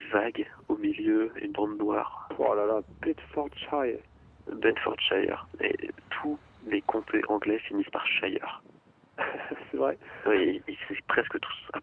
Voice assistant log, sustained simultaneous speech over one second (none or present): none